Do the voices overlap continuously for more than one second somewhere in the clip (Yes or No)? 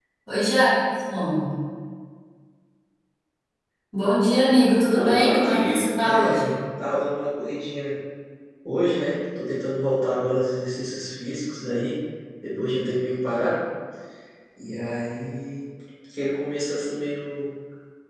Yes